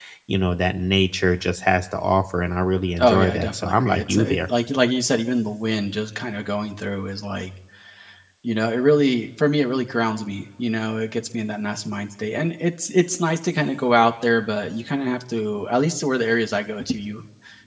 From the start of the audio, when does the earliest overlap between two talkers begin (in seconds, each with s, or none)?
3.0 s